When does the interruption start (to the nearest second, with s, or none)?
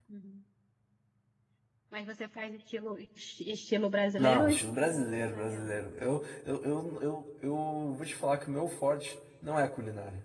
4 s